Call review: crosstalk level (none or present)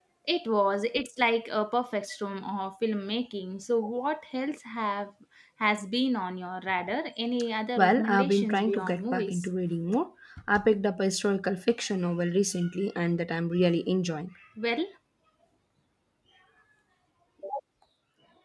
present